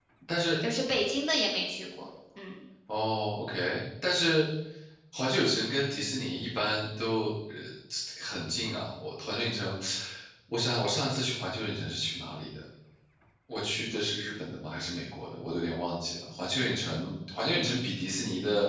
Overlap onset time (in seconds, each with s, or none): none